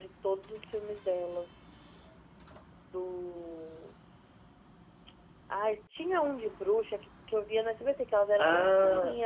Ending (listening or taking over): listening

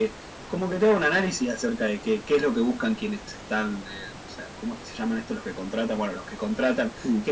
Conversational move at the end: listening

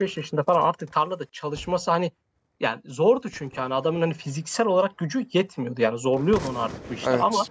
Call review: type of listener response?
listening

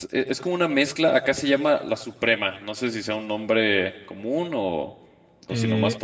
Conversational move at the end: taking over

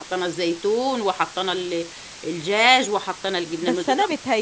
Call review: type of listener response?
taking over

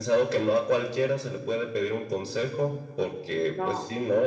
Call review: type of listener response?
listening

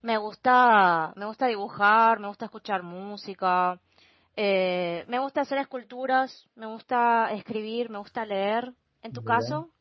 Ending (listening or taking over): taking over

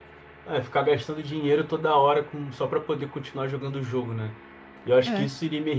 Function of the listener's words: listening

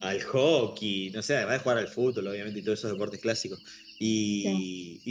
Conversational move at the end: listening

